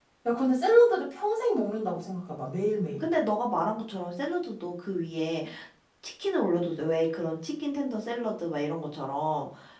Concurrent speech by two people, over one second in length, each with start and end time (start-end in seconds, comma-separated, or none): none